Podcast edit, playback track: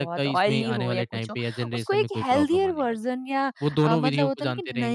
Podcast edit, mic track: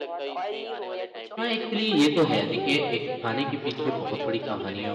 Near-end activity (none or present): present